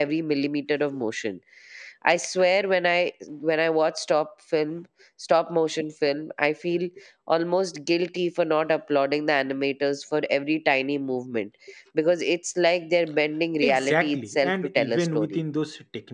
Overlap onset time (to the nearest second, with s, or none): 14 s